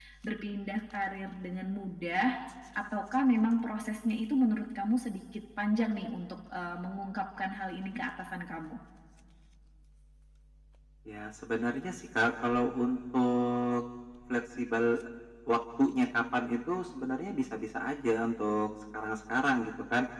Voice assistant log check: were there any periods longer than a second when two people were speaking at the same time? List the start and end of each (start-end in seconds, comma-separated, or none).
none